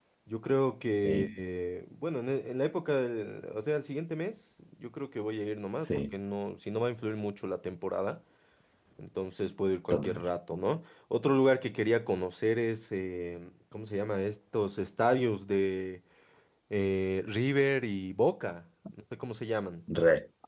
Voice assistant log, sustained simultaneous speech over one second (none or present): none